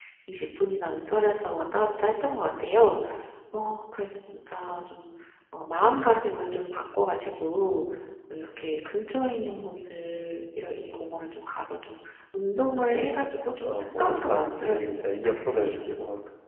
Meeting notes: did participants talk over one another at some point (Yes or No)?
Yes